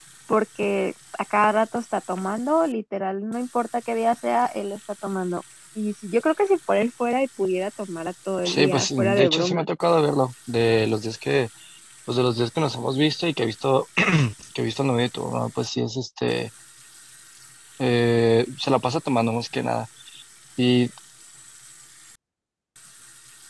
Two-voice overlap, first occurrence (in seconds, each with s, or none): 8.4 s